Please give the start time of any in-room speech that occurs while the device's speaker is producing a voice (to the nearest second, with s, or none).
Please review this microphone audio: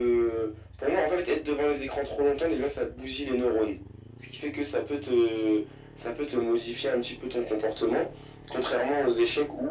none